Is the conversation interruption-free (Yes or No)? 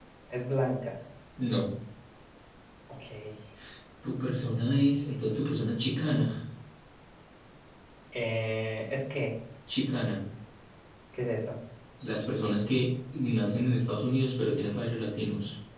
Yes